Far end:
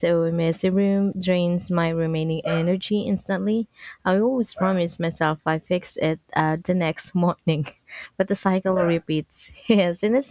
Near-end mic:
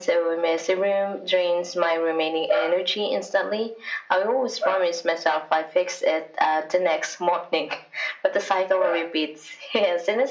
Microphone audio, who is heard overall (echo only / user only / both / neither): echo only